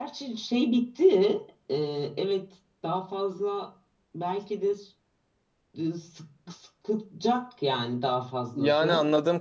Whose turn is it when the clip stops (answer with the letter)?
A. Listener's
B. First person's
A